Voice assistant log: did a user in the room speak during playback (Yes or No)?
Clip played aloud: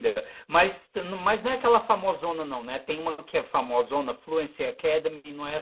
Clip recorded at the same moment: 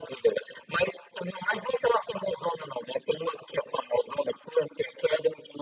No